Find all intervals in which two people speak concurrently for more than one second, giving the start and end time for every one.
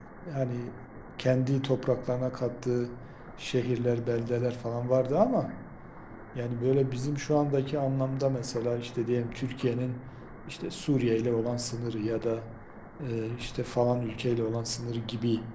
none

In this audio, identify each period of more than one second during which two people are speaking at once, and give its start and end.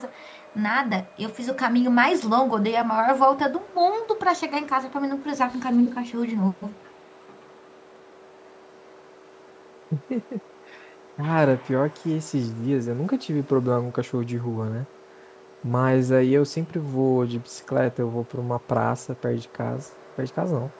none

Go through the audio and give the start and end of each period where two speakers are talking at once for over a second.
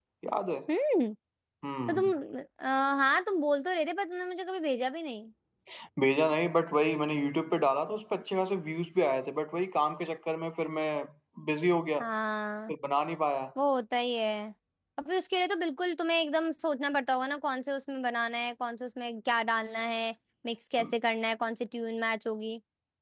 none

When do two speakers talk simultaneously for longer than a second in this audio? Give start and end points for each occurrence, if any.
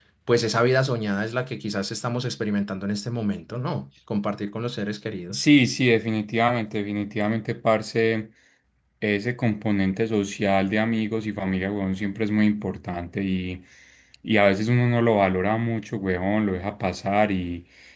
none

